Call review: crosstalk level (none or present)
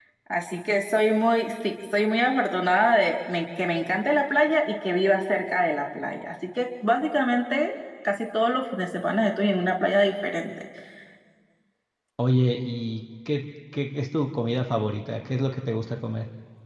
none